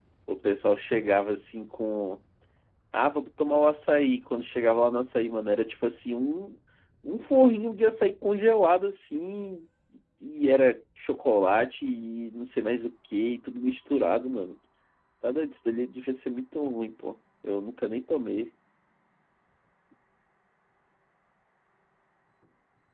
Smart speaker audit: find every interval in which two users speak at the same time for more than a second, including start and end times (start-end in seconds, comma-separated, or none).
none